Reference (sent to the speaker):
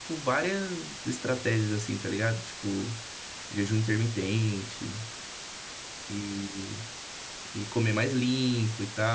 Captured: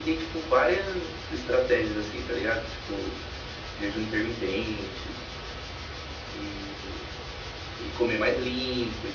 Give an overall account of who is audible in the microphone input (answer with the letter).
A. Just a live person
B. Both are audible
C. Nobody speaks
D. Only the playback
D